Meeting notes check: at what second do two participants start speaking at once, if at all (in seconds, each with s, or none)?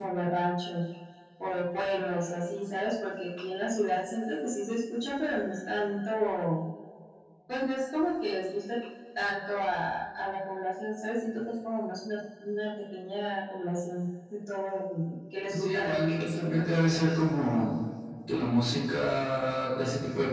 15.5 s